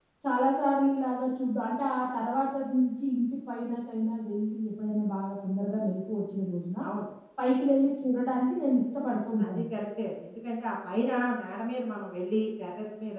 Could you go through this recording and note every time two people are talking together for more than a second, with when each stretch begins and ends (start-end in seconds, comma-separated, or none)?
none